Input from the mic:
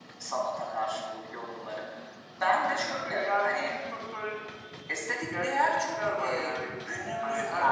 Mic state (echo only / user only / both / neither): echo only